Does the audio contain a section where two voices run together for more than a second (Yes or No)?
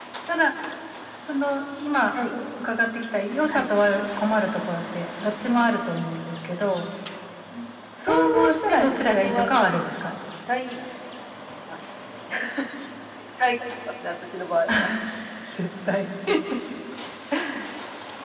Yes